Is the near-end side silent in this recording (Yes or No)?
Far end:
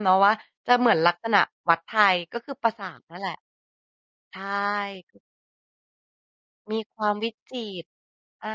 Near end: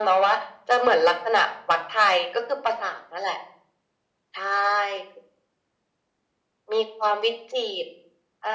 Yes